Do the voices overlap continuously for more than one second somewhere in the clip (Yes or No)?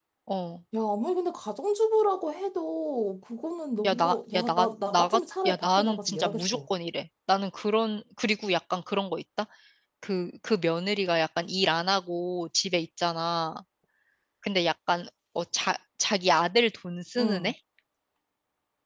Yes